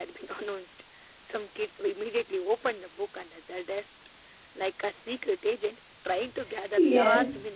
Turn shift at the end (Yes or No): Yes